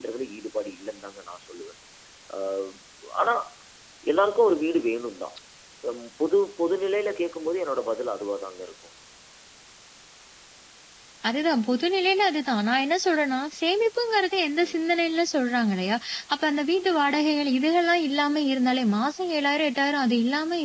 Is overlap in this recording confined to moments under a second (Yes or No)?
Yes